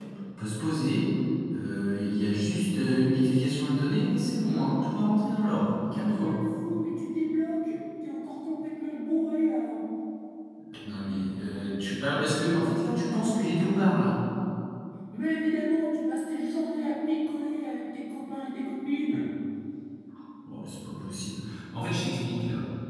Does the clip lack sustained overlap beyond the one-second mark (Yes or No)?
Yes